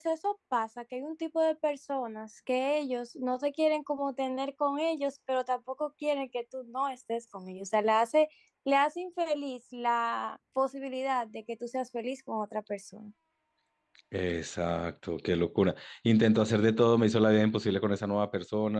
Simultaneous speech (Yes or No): No